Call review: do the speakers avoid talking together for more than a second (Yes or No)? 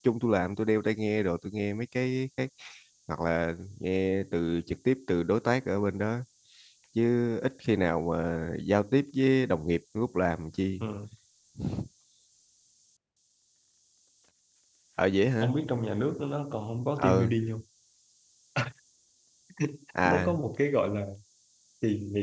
Yes